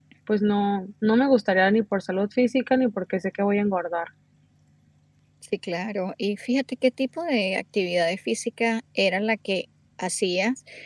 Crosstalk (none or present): none